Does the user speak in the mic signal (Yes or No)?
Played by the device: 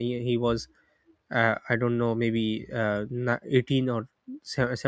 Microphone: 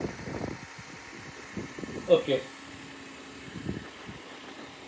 Yes